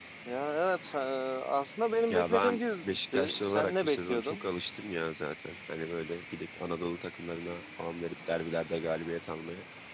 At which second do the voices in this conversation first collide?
2.1 s

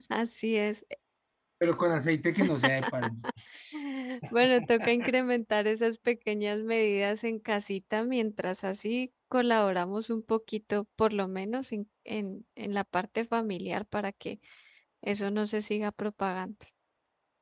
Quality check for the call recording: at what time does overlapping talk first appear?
none

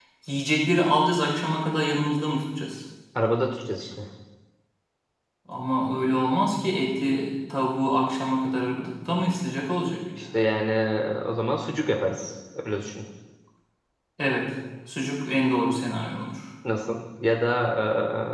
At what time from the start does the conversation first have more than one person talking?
none

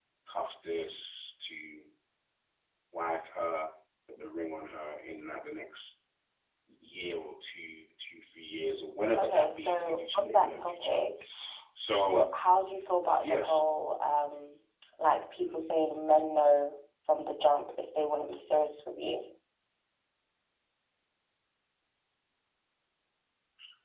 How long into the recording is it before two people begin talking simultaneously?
9.2 s

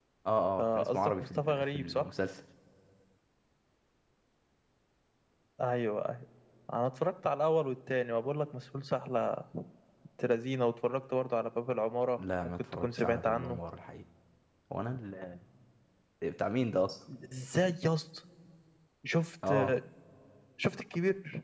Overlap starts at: 0.6 s

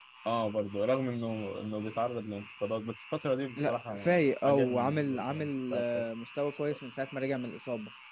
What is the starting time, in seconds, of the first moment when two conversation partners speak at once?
3.6 s

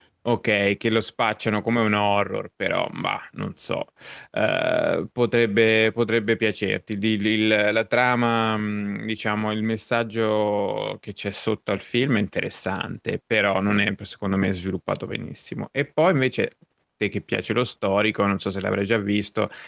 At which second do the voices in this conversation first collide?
none

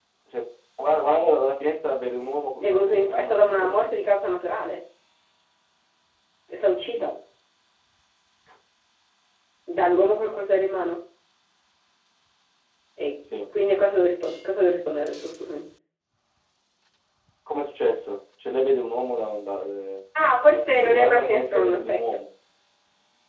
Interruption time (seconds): 2.6 s

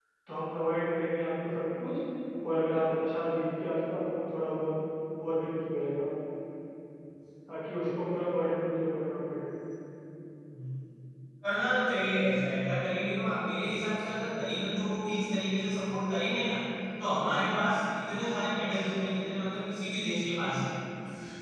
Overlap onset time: none

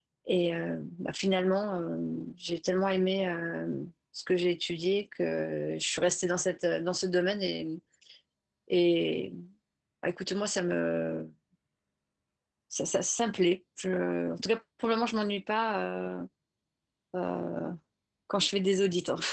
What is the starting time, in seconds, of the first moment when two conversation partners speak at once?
none

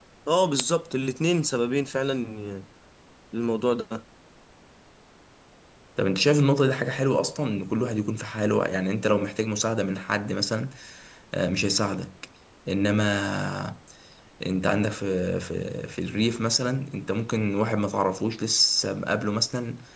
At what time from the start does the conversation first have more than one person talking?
none

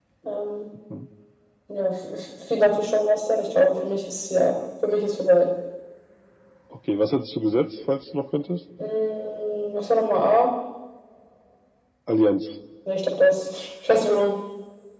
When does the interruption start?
none

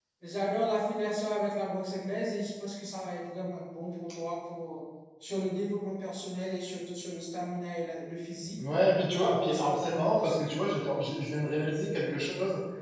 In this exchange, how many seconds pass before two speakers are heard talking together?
9.1 s

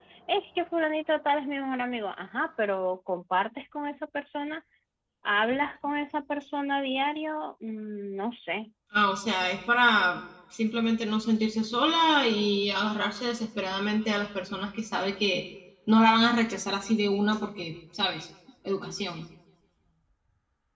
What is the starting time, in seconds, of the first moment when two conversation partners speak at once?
none

